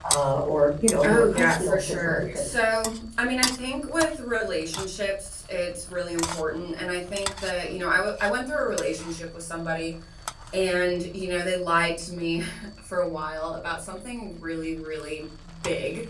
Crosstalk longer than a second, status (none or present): present